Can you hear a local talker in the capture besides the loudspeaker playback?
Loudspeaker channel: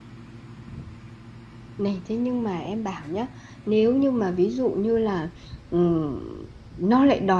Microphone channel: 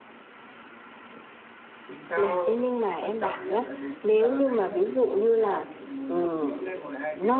Yes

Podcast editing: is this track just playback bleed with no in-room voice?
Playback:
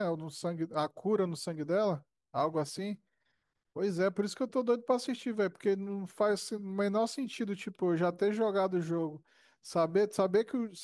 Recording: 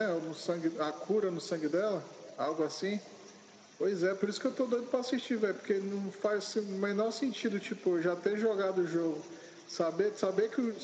Yes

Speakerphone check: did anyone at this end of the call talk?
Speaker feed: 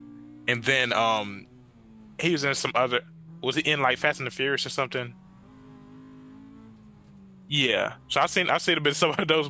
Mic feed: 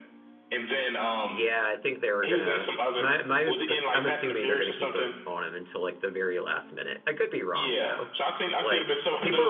Yes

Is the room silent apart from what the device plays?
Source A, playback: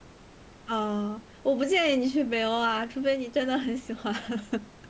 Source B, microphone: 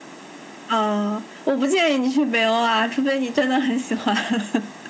Yes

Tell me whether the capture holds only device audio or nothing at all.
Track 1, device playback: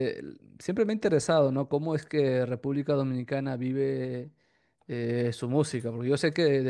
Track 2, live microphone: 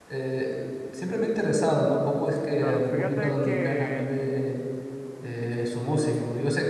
No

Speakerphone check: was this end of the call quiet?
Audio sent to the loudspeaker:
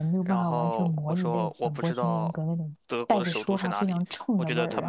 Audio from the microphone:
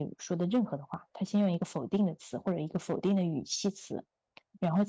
No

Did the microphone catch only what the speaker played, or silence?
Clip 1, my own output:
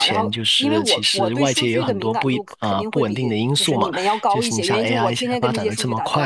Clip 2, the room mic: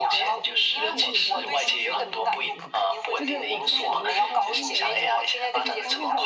No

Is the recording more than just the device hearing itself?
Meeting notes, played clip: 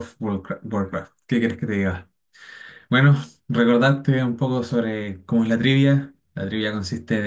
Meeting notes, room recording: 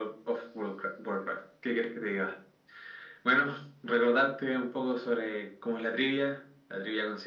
No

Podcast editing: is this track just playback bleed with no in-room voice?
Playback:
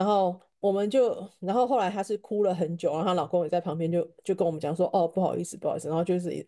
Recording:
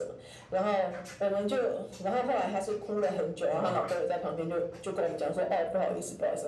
No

